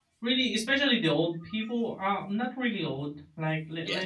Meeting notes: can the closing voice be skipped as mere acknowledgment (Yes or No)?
Yes